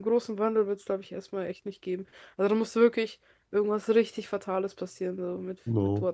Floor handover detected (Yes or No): Yes